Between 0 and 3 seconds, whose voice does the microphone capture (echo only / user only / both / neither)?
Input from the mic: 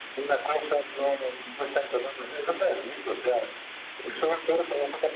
echo only